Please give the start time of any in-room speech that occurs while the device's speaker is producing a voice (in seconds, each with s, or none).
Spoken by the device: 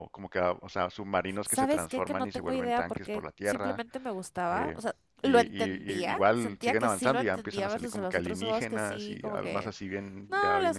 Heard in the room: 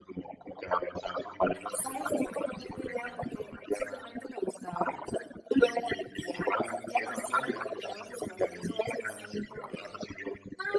none